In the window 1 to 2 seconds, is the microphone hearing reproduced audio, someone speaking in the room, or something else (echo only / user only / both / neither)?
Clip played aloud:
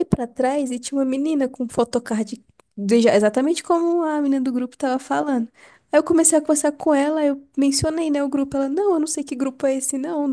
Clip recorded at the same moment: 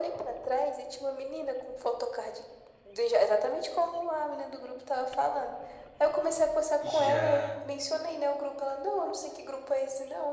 echo only